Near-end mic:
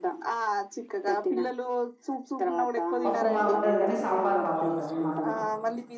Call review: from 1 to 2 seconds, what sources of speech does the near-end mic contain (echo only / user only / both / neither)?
echo only